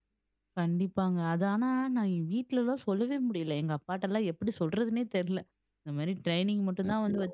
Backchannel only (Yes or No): Yes